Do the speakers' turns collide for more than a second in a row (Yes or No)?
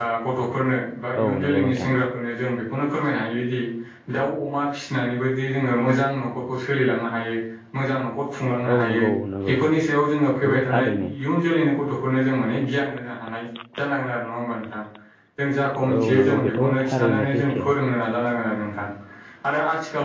Yes